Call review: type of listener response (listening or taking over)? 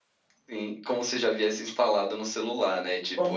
taking over